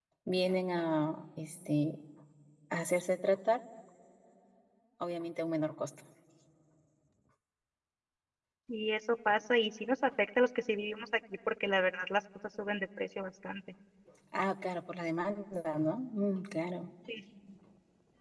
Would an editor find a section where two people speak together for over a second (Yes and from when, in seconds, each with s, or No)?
No